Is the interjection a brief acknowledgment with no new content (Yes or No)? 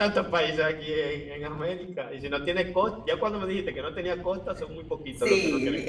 No